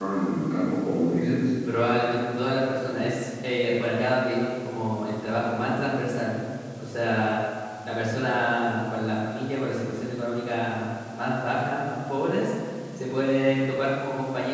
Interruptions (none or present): none